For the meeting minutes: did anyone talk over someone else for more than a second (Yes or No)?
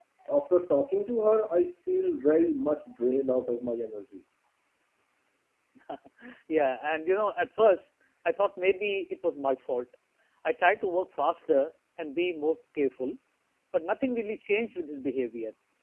No